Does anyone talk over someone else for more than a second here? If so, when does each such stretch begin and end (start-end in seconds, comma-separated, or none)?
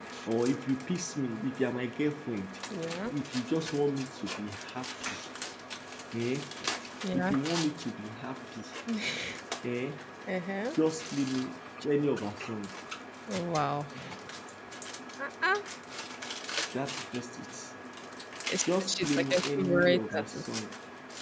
18.6-20.4